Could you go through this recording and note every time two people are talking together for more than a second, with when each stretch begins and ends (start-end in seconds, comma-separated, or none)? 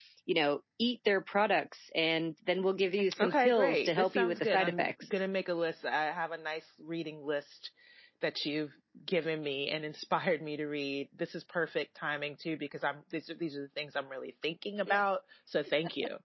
3.2-5.2